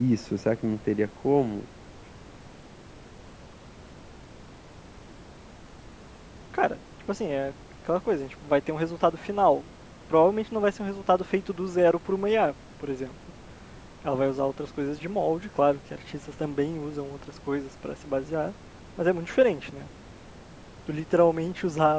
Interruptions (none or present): none